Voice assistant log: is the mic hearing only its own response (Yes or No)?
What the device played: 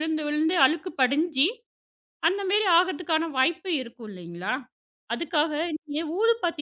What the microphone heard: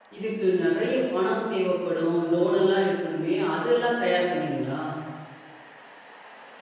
No